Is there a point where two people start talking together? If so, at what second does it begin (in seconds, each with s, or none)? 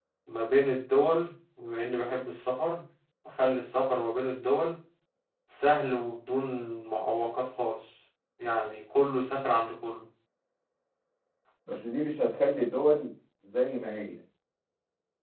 none